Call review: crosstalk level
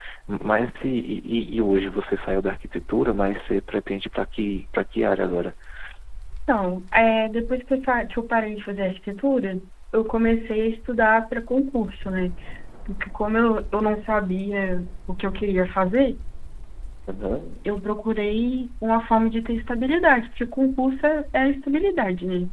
none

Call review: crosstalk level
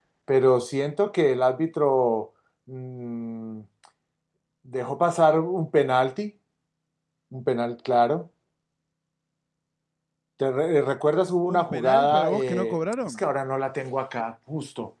present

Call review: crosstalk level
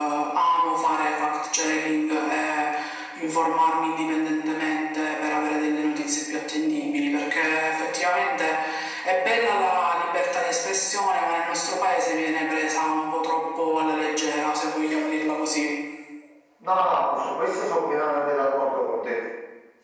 none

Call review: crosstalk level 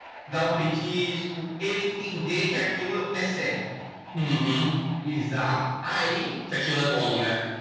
none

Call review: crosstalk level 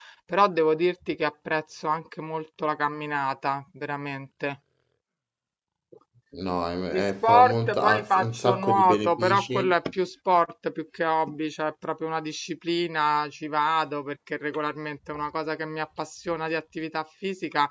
present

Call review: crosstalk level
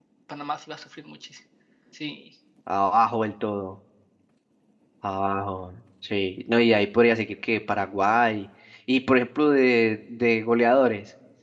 none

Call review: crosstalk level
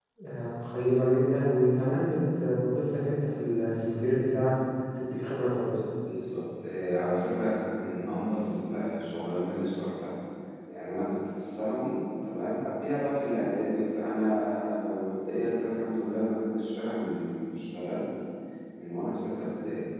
none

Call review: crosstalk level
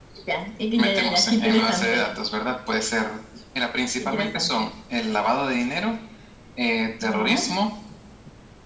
present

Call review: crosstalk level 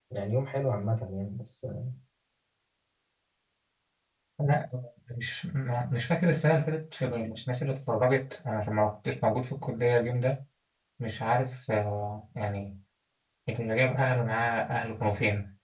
none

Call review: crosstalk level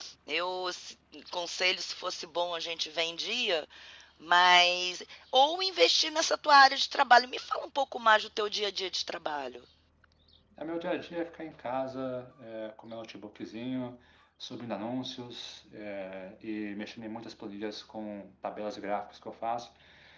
none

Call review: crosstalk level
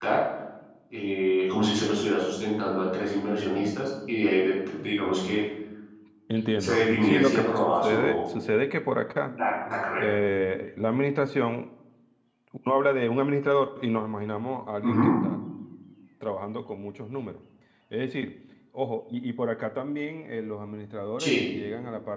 present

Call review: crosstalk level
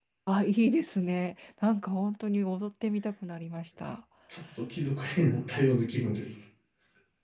none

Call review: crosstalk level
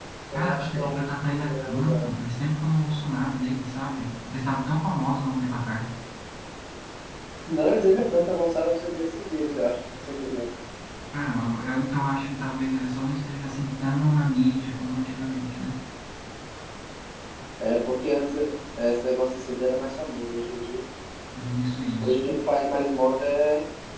present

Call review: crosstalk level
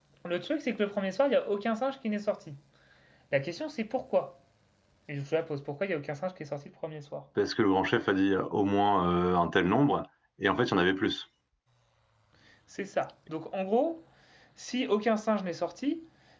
none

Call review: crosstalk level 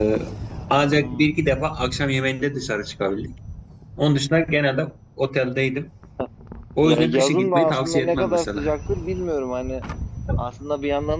present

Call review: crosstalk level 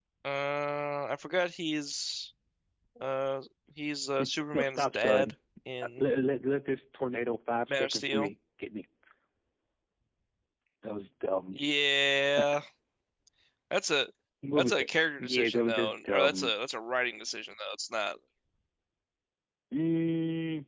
present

